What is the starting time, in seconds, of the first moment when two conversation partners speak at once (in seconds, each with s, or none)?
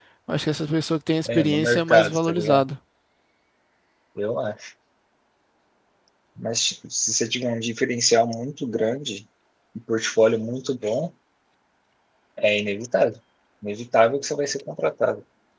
1.3 s